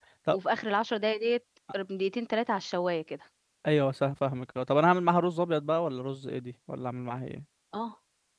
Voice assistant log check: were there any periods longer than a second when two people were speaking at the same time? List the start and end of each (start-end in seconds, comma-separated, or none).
none